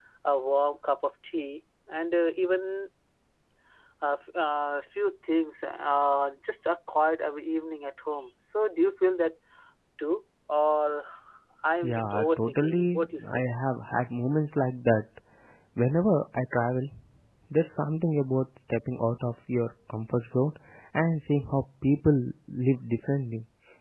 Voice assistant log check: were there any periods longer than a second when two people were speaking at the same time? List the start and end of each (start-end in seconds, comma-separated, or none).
11.8-13.4